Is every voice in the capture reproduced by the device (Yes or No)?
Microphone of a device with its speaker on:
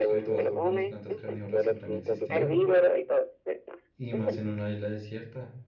No